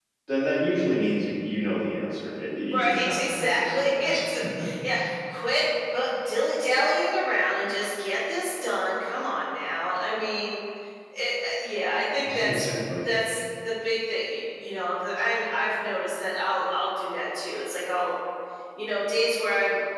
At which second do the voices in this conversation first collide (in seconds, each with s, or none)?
2.7 s